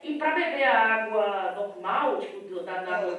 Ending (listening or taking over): listening